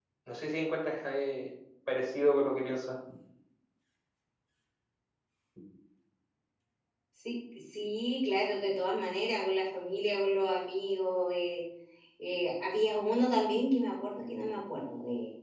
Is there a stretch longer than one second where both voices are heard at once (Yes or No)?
No